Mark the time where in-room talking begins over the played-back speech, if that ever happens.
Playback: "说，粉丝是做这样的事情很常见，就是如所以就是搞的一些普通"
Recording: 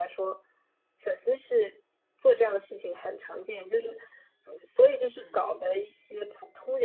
5 s

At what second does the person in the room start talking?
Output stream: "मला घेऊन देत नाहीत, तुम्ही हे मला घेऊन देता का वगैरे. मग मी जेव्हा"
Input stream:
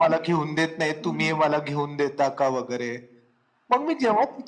1 s

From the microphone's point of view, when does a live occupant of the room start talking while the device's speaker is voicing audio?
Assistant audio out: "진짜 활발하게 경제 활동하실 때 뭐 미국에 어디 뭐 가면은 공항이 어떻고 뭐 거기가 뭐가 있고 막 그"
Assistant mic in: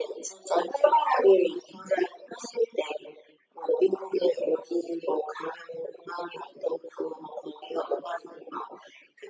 none

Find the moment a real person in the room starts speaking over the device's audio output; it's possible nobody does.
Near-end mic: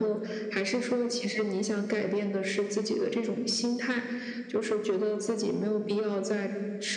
none

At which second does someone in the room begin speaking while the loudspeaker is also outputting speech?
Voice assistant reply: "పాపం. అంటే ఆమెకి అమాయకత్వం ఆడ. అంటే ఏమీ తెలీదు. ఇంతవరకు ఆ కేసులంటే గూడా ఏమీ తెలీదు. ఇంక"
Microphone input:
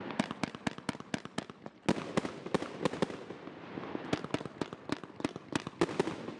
none

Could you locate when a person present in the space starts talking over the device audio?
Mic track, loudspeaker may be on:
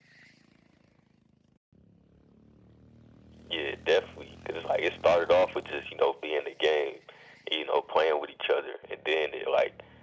none

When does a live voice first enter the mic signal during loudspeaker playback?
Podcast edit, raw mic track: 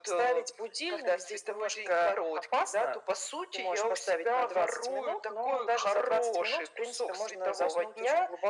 none

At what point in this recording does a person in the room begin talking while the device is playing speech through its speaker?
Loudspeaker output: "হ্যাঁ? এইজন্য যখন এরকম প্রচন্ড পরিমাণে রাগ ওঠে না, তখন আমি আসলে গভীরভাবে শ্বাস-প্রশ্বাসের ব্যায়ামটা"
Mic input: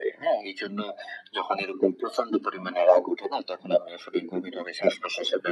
none

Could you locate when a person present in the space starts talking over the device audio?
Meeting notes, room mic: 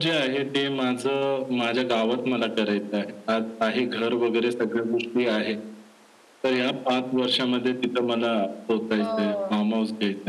9 s

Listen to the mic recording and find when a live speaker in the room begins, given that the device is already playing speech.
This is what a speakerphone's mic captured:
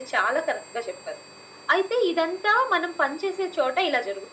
none

